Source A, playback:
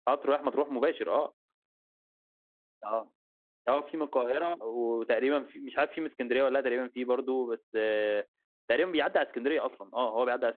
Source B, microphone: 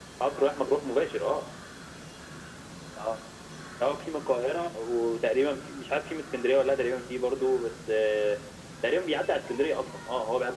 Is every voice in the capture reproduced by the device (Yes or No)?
Yes